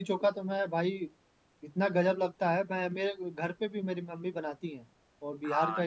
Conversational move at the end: taking over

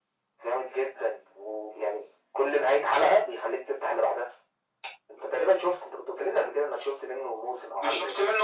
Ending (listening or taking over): taking over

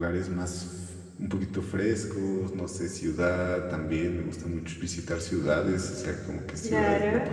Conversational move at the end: listening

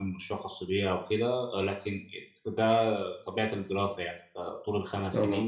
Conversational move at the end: listening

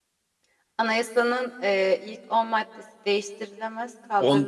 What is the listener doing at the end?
taking over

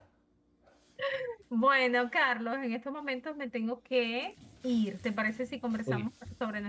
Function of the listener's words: listening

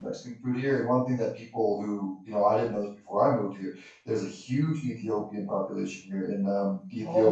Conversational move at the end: listening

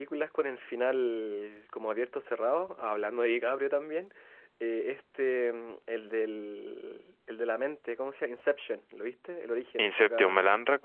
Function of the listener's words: taking over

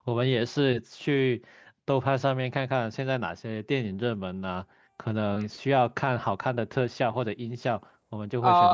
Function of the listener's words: taking over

